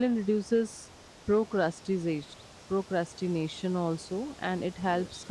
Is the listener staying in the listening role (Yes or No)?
Yes